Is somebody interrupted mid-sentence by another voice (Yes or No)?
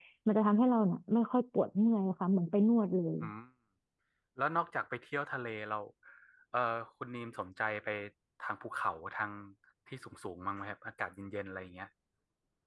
No